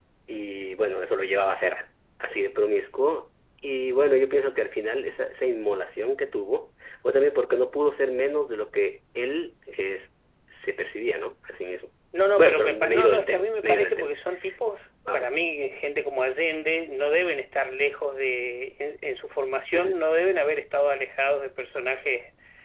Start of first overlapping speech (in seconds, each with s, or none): 12.4 s